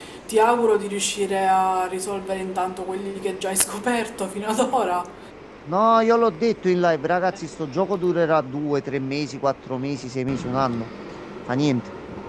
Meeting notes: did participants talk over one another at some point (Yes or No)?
No